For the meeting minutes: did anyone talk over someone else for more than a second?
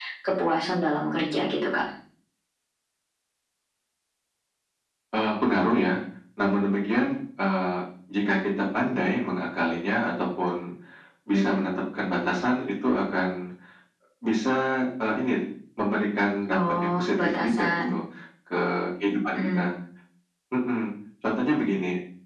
Yes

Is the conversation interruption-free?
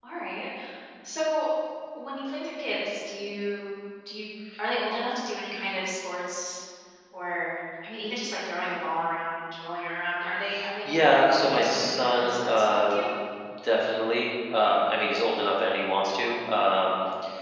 No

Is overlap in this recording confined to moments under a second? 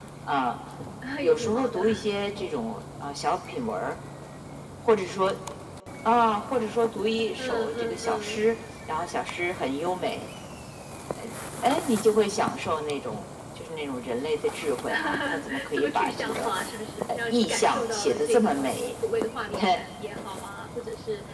No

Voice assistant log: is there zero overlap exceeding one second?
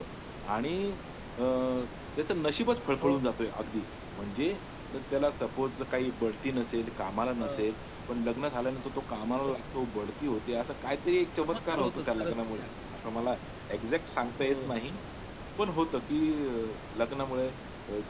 No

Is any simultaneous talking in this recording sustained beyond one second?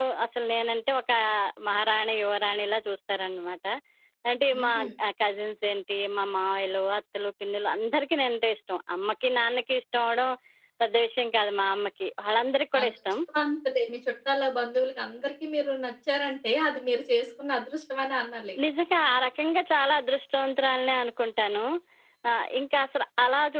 No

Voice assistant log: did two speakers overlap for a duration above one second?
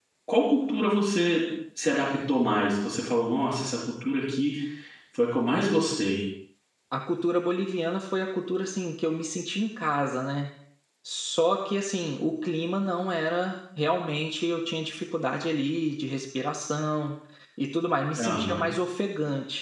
No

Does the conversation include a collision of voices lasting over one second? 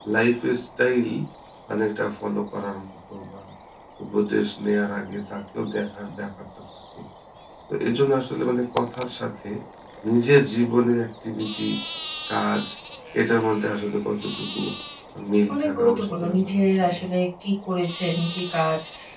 Yes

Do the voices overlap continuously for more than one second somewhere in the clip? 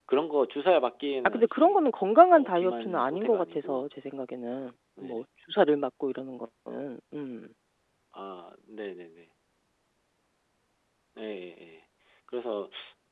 Yes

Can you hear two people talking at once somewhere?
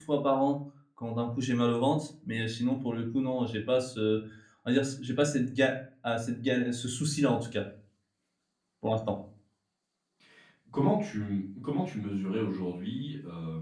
No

